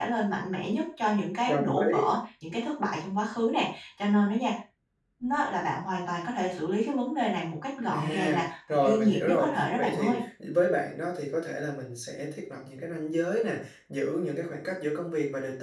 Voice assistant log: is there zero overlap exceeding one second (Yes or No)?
No